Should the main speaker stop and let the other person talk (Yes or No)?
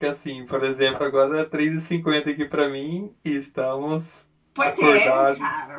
Yes